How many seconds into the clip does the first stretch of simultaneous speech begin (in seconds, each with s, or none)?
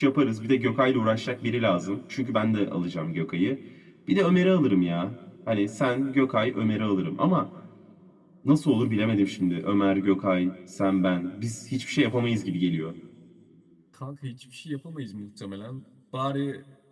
none